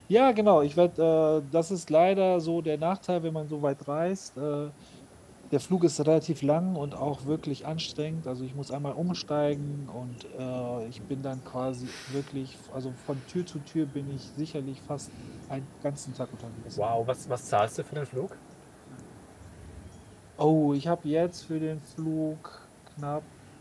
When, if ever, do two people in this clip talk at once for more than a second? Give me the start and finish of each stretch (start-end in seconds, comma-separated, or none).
none